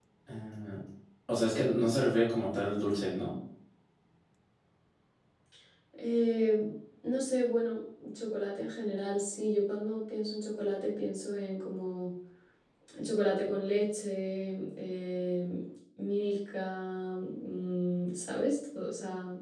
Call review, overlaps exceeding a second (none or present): none